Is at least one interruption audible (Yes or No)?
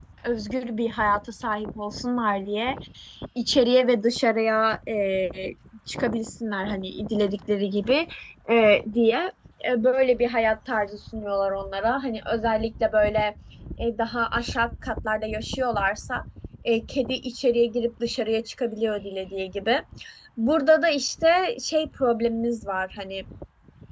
No